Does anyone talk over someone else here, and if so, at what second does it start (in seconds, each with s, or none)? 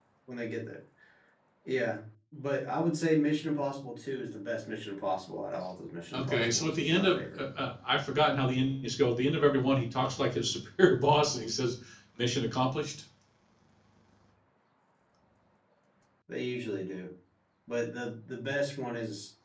6.1 s